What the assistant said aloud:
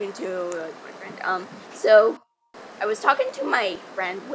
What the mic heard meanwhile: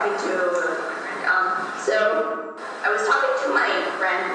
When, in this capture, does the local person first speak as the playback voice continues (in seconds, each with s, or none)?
none